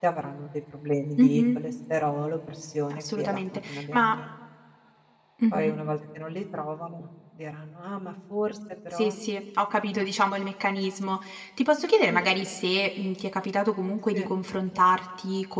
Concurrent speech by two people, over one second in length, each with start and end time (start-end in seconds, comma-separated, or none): 2.9-4.2